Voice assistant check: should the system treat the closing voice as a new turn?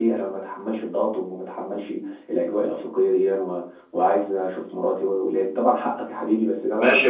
Yes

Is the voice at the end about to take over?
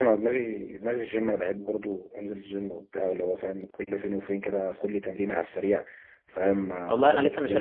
Yes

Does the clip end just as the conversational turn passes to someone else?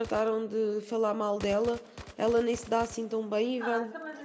Yes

